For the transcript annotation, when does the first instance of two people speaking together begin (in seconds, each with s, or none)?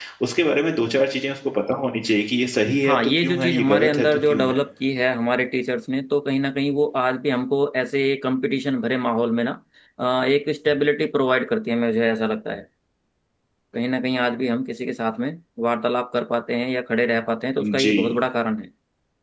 2.8 s